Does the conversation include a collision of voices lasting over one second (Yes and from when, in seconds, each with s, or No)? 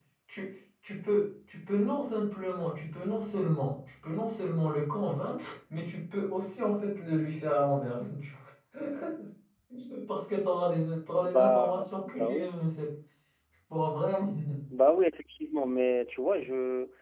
Yes, from 11.2 s